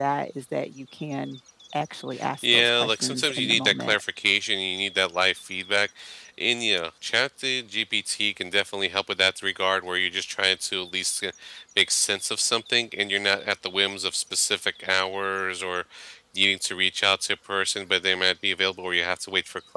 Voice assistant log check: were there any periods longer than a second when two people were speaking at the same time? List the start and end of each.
2.4-4.0

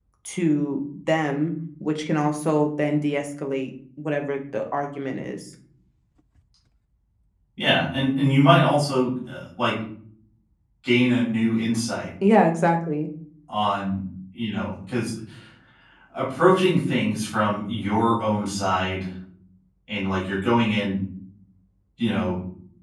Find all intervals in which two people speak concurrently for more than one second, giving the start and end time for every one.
none

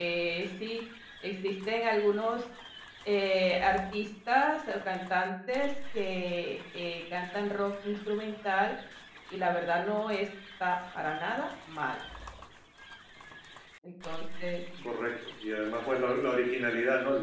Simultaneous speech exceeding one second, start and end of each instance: none

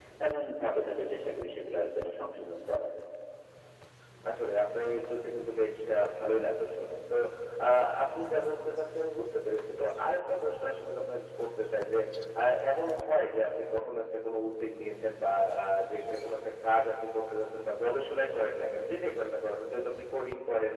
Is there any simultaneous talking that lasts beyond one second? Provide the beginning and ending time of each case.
none

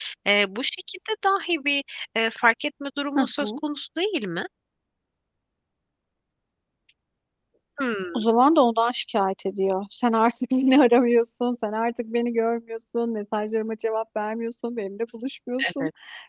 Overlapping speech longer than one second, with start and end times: none

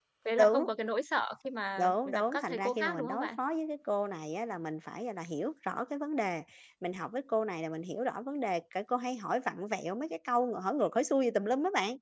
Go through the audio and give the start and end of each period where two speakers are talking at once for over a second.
1.8-3.3

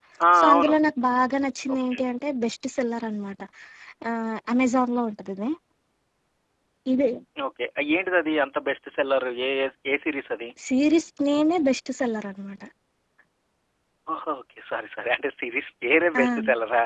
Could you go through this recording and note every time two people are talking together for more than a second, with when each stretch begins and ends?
none

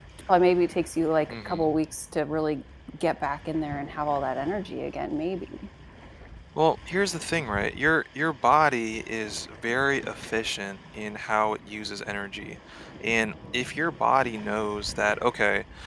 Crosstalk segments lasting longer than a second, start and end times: none

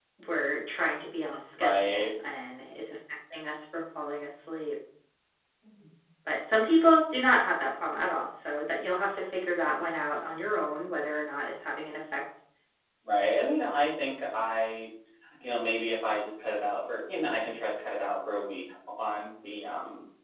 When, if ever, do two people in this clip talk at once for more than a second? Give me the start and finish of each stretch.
none

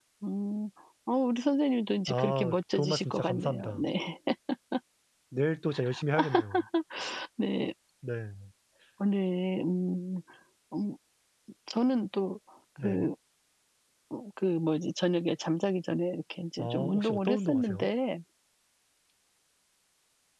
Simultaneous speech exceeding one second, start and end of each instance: 2.1-3.8, 16.6-17.9

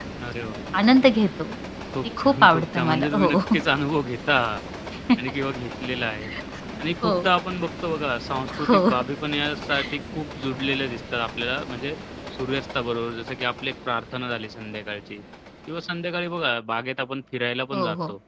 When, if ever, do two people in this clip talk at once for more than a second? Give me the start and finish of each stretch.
2.0-3.4

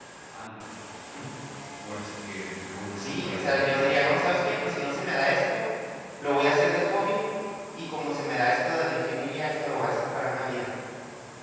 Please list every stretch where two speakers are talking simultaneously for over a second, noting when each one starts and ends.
3.0-4.5

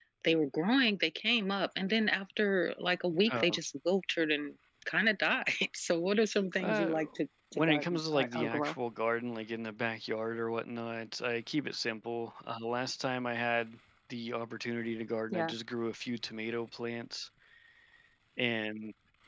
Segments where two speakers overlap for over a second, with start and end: 7.5-8.8

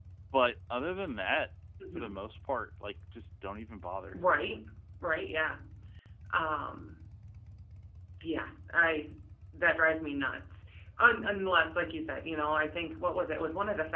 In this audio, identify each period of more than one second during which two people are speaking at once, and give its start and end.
none

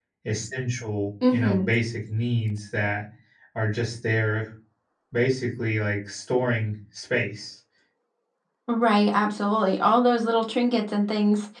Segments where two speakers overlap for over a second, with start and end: none

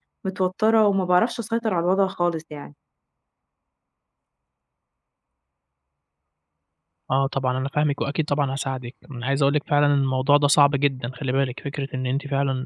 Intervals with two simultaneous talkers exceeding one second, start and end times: none

